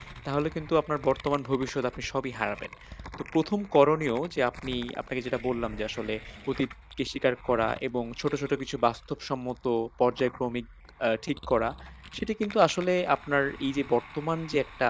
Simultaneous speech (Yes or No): No